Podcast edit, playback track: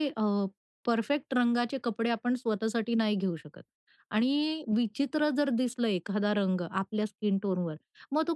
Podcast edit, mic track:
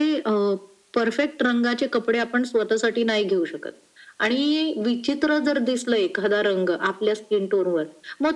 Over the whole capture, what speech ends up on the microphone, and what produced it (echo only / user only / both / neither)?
echo only